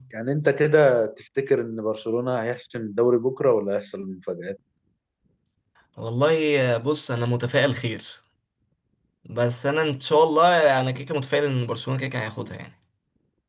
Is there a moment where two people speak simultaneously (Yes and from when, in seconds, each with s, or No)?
No